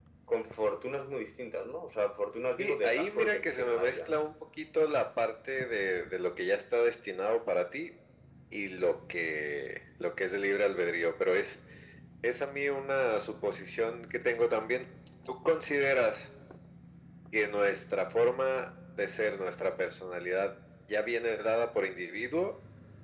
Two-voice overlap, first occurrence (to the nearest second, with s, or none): 3 s